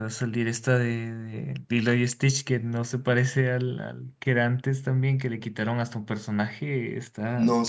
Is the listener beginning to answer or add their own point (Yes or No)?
Yes